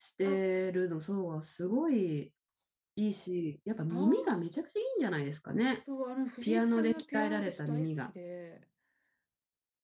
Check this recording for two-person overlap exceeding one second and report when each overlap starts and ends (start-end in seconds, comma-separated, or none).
6.4-8.1